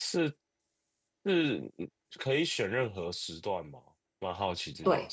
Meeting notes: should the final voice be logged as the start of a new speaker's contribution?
Yes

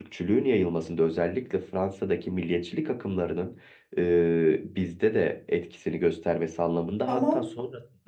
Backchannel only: Yes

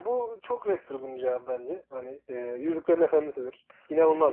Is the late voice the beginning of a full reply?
Yes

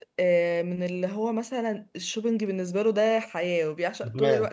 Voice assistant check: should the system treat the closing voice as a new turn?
No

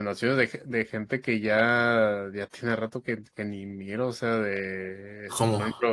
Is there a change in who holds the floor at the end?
No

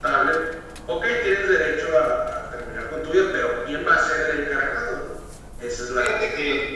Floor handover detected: Yes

